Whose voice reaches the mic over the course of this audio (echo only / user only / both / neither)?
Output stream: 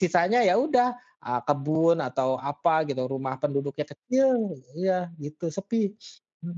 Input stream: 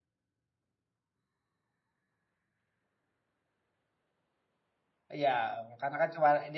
user only